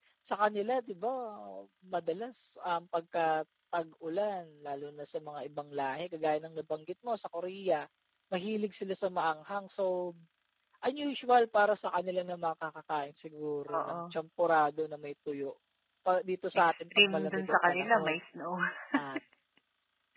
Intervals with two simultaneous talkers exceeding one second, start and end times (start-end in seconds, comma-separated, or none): 16.6-18.1